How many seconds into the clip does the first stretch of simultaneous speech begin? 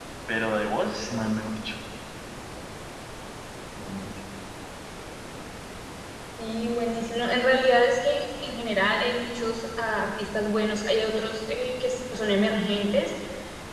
none

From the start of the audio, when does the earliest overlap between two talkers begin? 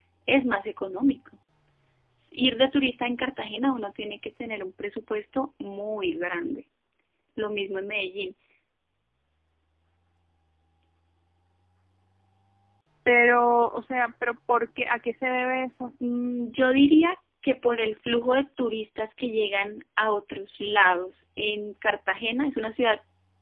none

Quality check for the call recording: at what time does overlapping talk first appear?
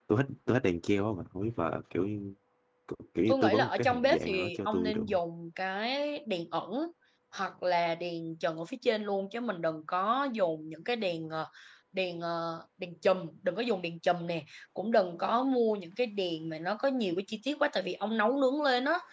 3.3 s

